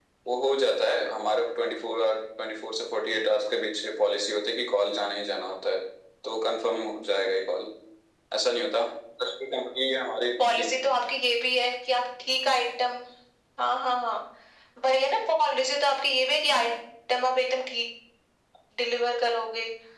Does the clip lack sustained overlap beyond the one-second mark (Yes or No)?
Yes